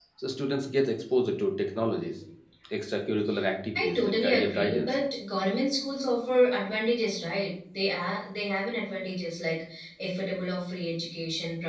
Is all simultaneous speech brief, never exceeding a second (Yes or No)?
No